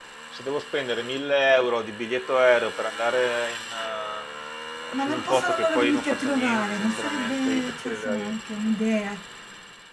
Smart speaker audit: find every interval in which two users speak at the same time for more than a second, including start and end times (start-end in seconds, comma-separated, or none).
4.9-8.3